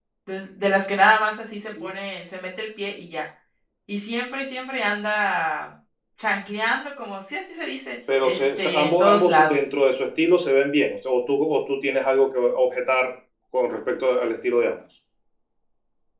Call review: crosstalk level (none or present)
present